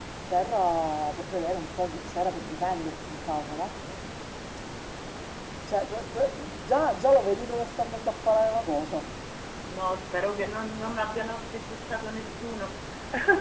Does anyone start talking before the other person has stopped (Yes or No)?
No